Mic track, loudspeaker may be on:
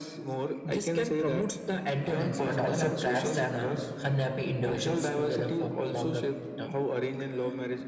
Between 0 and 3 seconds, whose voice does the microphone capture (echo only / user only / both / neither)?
echo only